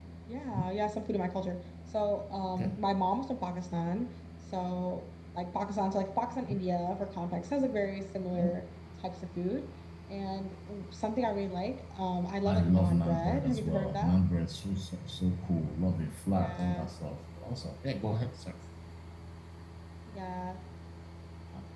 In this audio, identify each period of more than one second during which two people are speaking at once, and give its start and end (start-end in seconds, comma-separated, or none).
12.5-14.1